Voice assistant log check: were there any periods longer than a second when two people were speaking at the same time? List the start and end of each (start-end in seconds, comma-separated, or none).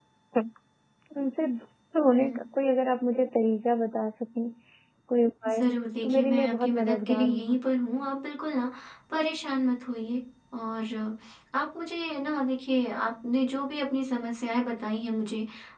6.0-7.6